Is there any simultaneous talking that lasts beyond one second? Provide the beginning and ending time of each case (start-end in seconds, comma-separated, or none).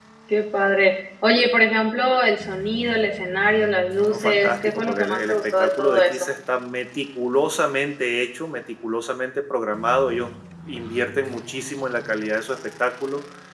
4.1-6.1